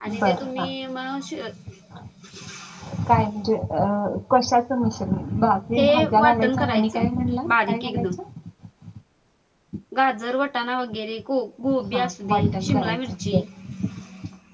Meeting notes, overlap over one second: present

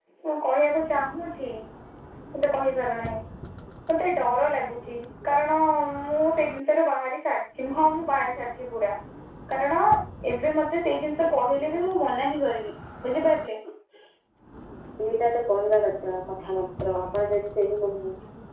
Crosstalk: none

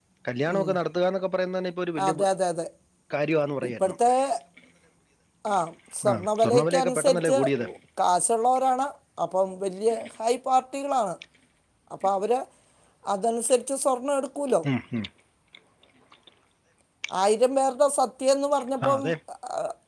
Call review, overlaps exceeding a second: present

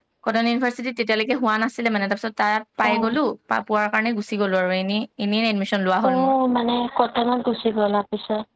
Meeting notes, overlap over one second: none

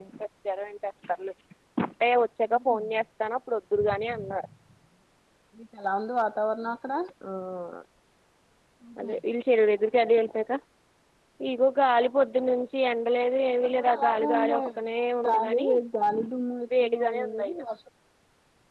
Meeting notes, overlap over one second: present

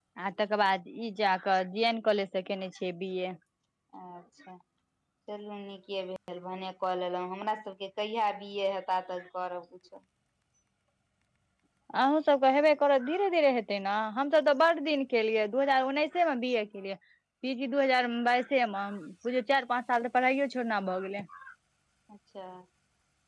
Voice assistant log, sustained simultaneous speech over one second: none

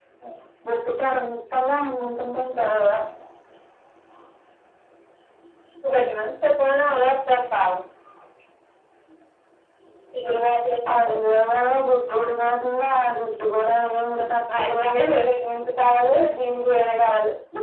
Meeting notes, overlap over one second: none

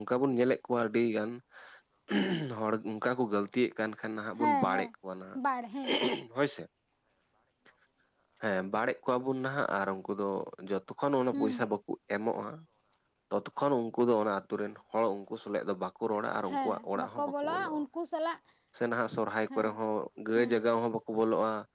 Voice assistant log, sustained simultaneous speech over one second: present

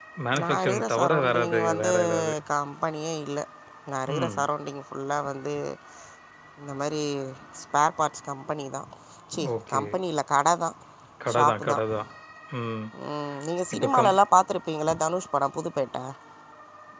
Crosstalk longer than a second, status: present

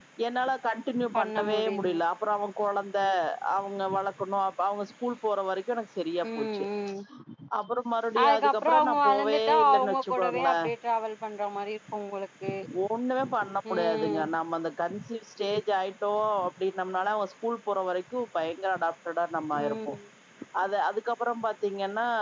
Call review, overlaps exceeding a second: present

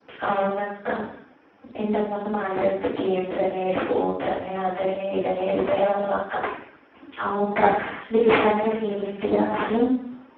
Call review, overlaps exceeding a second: none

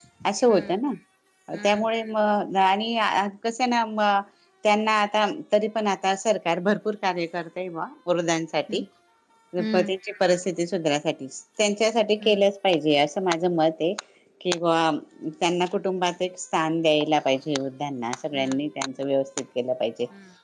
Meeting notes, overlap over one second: none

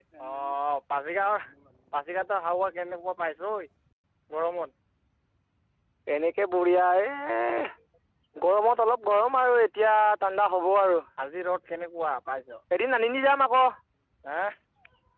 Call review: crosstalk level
none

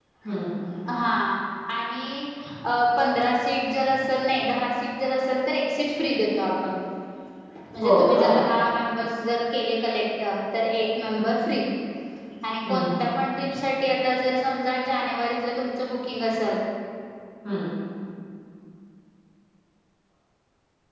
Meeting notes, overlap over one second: none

